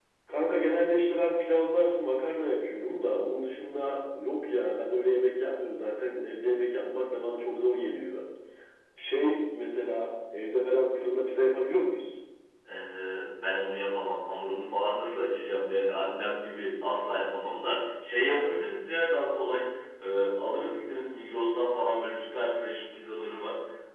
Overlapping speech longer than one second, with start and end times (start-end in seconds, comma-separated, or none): none